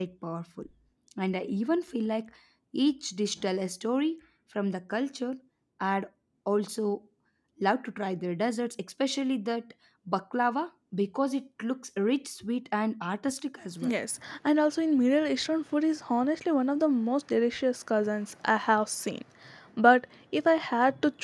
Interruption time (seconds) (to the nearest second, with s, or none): none